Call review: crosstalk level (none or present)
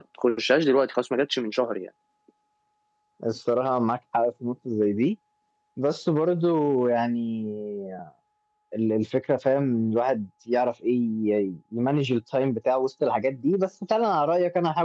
none